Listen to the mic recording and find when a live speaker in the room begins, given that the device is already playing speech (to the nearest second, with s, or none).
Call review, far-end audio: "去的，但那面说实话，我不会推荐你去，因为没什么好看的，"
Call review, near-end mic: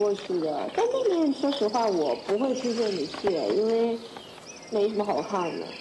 none